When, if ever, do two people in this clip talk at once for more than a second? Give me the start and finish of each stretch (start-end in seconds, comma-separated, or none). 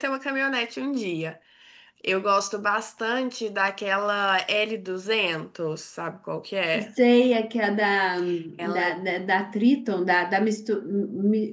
none